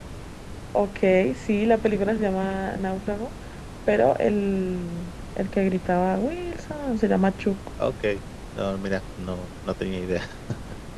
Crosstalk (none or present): none